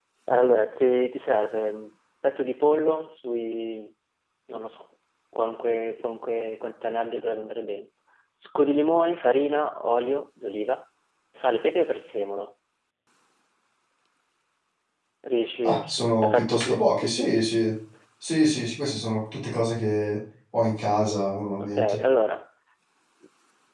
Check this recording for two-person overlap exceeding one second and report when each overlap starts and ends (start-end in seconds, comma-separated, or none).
16.2-17.5